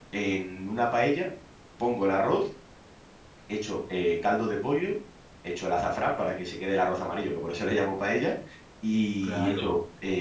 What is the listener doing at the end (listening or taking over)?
listening